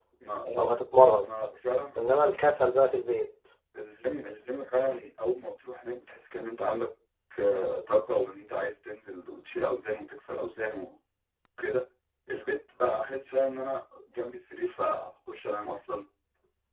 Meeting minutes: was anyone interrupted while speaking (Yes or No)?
No